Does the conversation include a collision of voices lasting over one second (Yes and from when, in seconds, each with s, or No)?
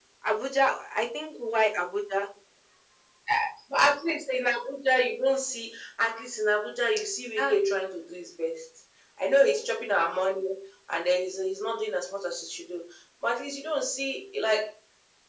No